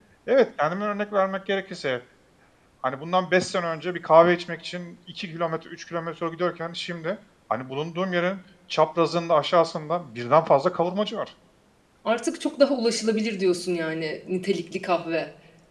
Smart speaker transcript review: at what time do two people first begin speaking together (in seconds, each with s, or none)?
none